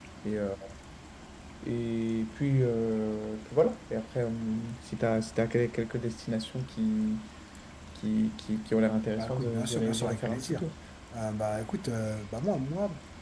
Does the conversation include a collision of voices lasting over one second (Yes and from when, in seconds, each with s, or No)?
Yes, from 9.2 s